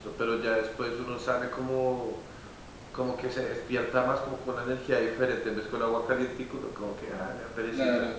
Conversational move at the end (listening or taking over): taking over